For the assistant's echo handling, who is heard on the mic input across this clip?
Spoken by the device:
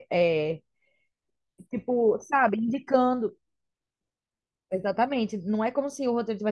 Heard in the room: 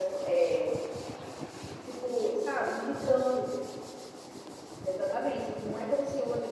echo only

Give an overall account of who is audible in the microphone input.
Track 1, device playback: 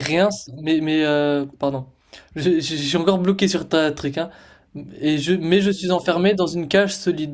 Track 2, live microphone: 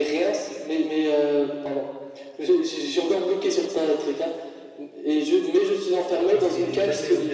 both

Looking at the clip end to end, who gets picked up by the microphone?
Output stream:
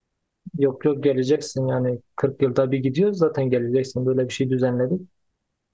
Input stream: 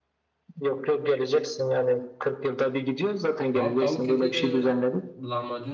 both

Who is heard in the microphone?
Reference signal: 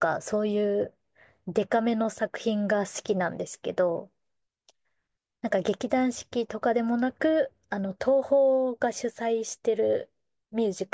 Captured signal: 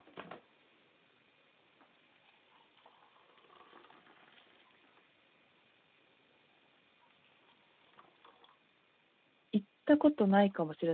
user only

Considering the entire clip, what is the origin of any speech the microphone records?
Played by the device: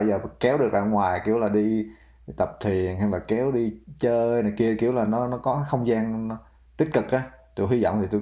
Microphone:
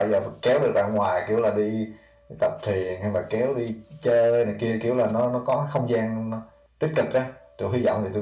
echo only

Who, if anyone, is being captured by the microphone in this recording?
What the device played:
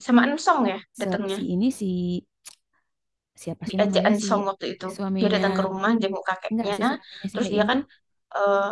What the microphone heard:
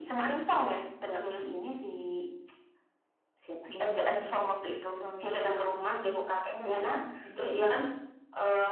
echo only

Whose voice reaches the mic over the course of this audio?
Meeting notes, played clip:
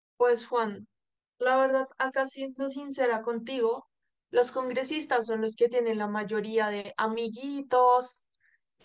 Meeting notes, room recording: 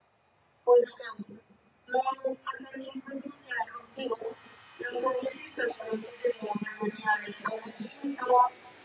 echo only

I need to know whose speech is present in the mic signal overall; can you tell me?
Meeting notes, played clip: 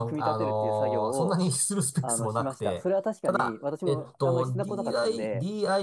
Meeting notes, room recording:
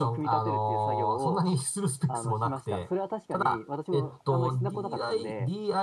echo only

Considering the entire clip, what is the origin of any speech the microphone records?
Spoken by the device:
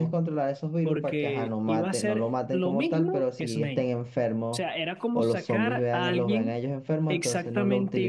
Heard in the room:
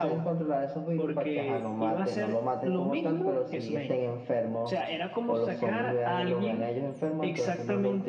echo only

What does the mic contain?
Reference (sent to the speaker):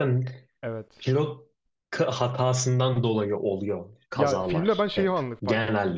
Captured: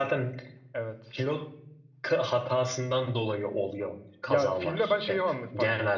echo only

